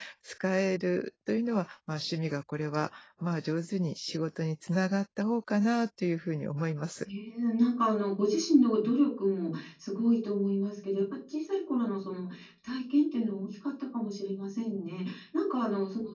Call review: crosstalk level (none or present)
none